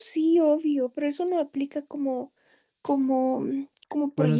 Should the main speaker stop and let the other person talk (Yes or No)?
Yes